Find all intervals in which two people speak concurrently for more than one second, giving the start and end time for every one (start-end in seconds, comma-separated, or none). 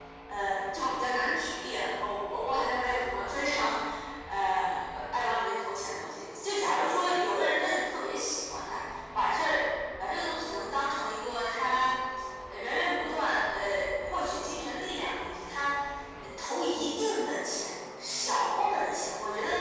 none